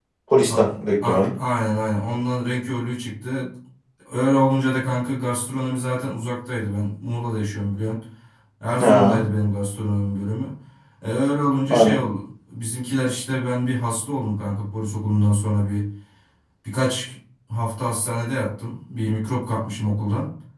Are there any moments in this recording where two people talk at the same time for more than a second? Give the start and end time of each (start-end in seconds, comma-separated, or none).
none